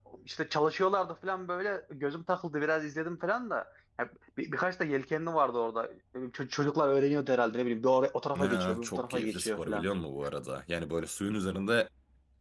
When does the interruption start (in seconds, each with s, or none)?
8.3 s